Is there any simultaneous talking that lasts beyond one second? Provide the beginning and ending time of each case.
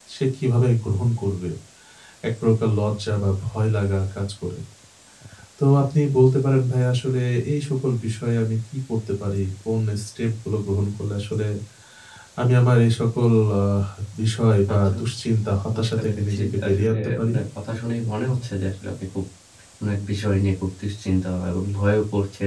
15.8-17.3

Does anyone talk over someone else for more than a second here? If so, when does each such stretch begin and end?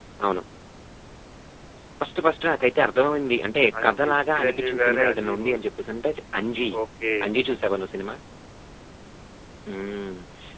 3.8-5.6

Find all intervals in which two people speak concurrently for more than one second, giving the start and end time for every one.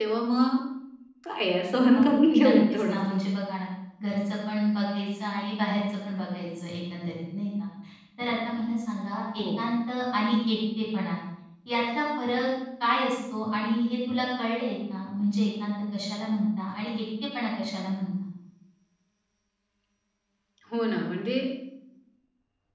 2.0-3.2

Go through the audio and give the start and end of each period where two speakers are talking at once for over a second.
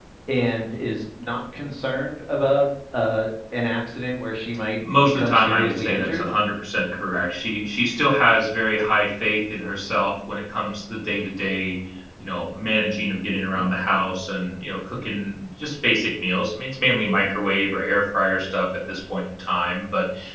5.0-6.3

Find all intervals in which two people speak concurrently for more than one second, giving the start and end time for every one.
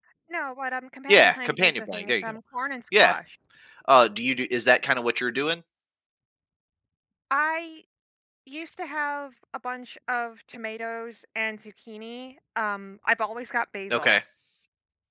1.1-2.4

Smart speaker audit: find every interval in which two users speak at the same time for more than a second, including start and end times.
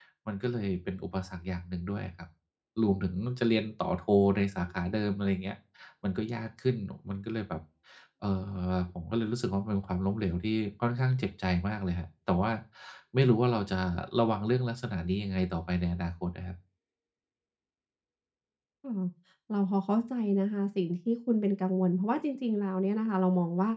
none

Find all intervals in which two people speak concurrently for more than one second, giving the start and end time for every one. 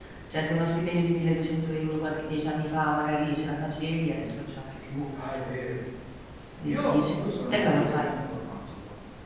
6.6-8.1

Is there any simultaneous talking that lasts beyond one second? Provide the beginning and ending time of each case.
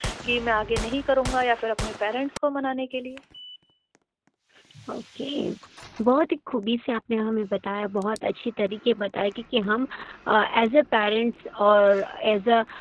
none

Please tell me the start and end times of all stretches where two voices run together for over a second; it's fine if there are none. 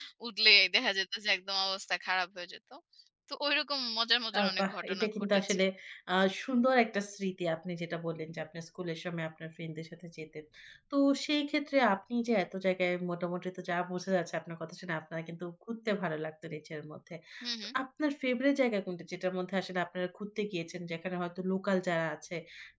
4.4-5.6

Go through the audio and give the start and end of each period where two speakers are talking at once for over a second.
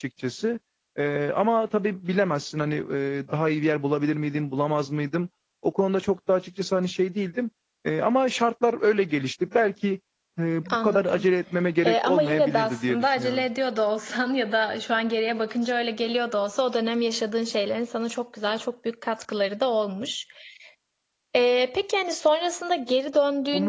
11.8-13.4

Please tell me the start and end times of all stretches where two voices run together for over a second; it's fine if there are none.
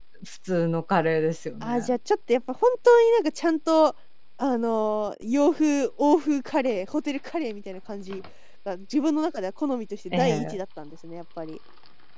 none

